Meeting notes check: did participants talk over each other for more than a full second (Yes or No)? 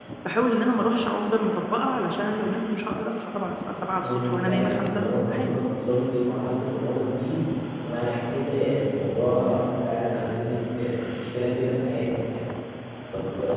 Yes